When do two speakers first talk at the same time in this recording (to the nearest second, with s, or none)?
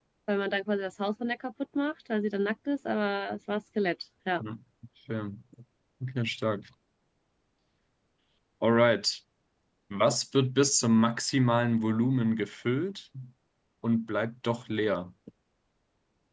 none